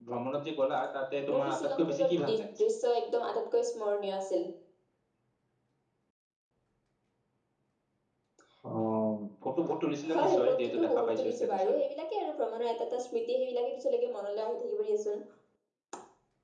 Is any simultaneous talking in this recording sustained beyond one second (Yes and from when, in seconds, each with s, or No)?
Yes, from 1.3 s